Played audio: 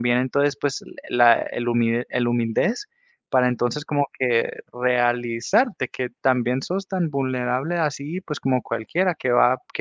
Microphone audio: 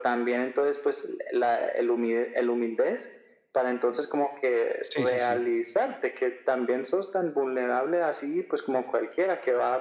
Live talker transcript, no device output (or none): Sí, sí, sí,